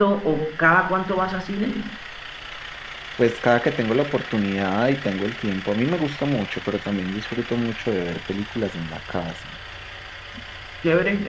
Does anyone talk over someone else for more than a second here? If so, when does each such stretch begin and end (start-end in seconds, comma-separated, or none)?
none